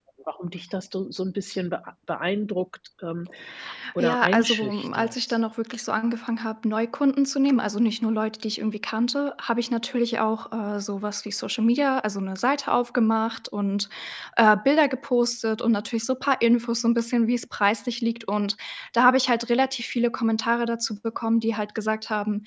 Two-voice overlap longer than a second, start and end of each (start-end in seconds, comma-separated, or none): 4.0-5.4